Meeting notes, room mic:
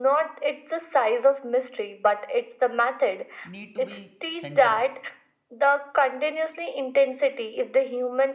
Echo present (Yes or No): Yes